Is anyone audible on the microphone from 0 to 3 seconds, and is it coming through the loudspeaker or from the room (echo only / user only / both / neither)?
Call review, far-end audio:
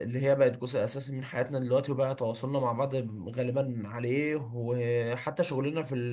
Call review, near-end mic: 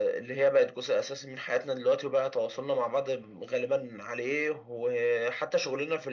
echo only